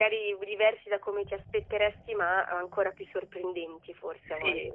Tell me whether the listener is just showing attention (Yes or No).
No